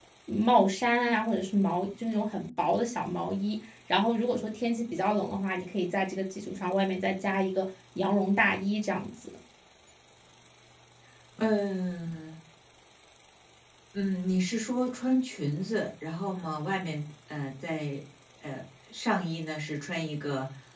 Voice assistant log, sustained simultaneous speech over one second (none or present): none